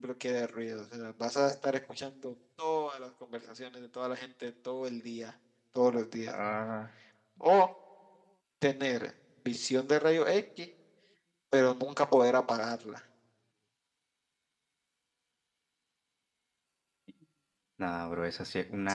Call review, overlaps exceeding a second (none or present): none